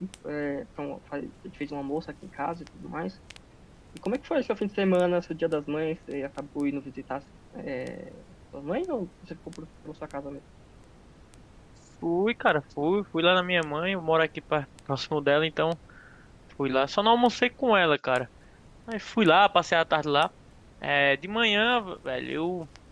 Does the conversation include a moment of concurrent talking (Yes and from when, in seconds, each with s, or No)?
No